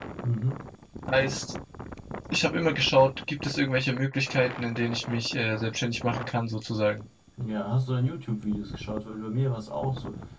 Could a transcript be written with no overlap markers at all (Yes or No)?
Yes